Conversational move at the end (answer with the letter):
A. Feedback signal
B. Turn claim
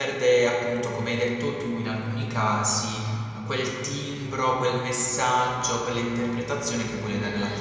B